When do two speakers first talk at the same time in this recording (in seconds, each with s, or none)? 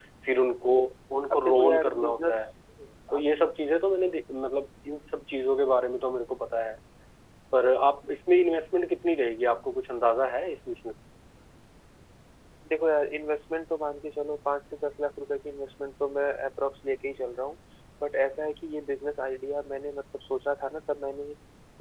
1.3 s